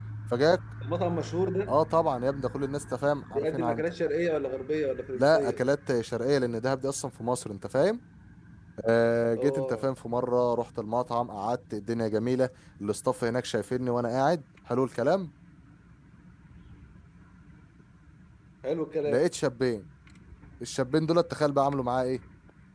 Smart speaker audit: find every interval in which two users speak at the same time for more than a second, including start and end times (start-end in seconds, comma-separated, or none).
none